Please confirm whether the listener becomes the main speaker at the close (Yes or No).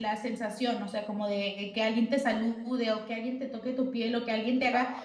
No